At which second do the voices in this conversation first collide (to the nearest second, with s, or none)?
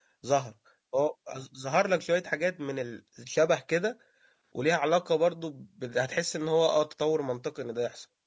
none